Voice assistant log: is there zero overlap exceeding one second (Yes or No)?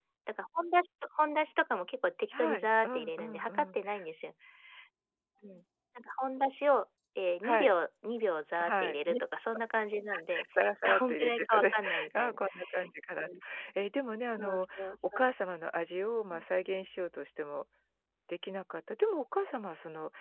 No